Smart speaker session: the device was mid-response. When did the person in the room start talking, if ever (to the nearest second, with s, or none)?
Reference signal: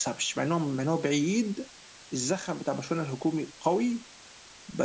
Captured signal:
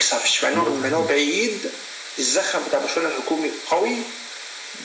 1 s